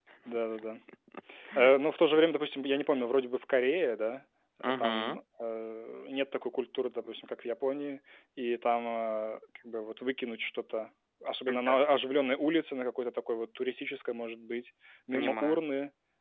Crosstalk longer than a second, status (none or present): none